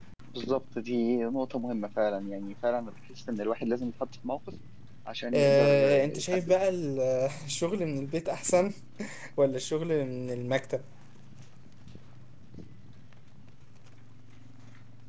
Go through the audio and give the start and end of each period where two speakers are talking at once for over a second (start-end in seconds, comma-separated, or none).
5.3-6.5